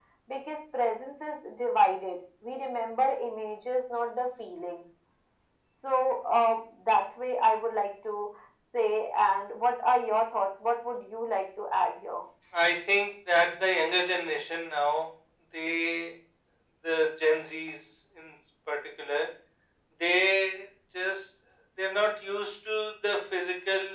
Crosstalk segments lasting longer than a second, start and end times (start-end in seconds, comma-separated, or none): none